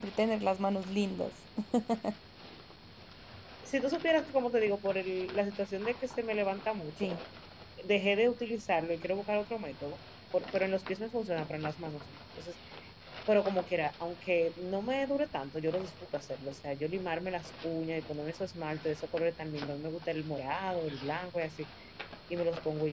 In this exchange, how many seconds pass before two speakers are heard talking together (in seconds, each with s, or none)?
none